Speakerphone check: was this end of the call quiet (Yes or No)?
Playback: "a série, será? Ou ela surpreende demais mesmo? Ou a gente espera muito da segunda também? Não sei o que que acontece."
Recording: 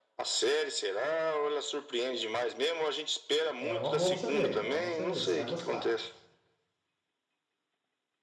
No